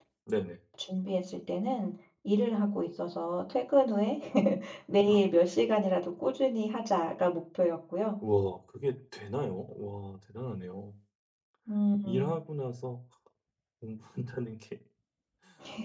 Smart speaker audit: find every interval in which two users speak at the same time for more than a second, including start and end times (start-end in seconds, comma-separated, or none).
none